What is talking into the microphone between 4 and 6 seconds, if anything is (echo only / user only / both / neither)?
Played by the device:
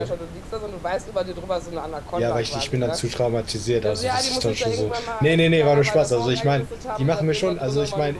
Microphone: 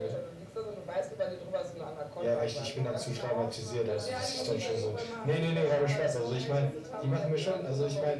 both